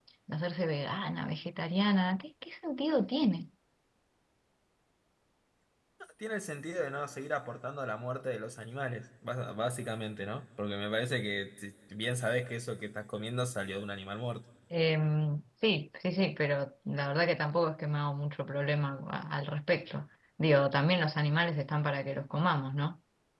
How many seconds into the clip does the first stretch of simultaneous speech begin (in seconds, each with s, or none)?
none